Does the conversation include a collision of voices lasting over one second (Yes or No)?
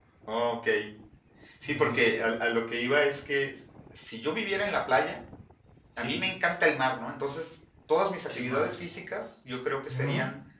No